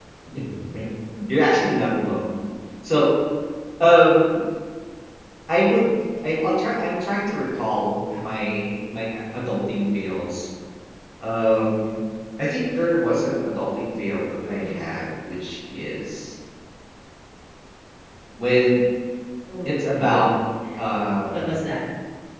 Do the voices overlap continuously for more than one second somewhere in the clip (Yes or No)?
No